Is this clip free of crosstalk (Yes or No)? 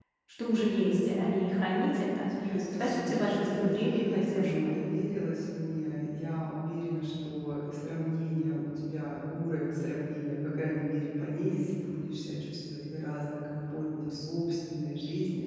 No